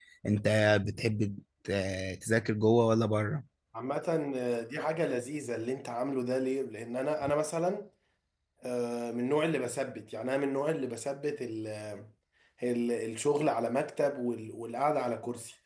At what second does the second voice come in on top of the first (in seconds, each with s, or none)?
none